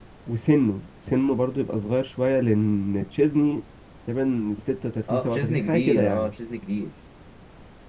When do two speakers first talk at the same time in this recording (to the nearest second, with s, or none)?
5 s